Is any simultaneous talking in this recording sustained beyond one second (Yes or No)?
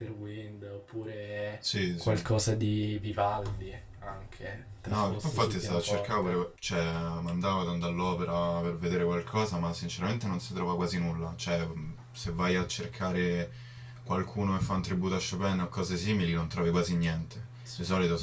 Yes